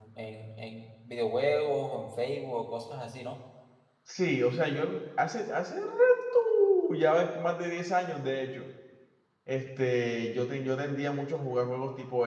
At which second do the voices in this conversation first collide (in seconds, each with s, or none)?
none